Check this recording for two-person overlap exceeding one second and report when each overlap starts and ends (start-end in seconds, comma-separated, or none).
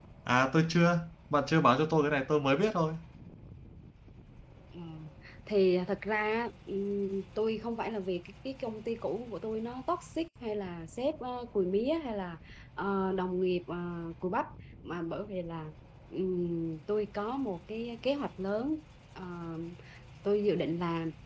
none